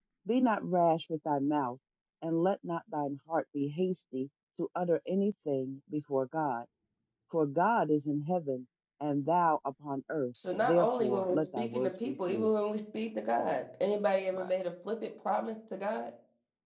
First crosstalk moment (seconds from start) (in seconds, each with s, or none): 10.6 s